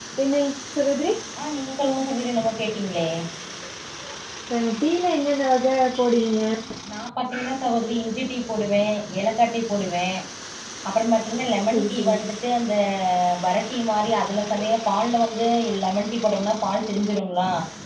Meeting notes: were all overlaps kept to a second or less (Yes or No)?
Yes